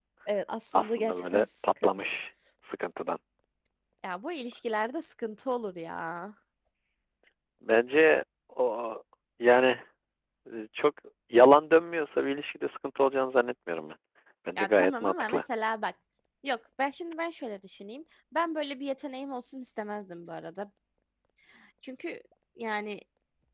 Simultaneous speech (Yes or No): Yes